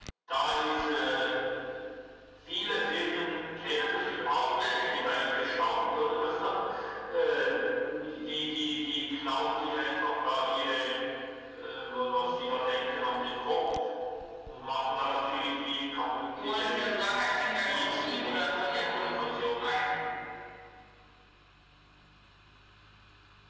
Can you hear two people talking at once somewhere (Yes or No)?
Yes